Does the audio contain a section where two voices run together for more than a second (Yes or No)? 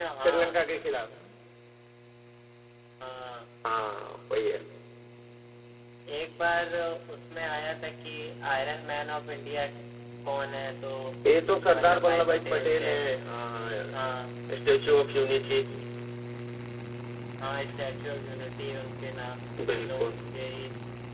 Yes